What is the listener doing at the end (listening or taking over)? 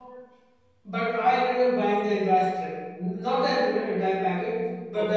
listening